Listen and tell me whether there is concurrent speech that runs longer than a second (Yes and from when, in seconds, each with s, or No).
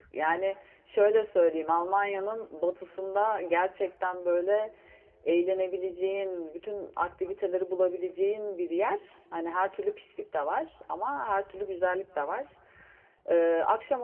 No